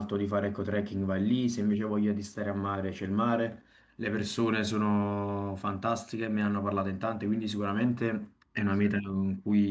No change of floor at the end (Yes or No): Yes